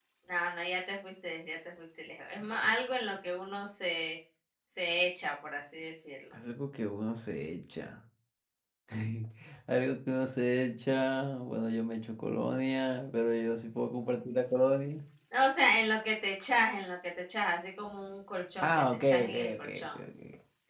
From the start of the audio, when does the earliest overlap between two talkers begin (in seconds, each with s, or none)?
18.6 s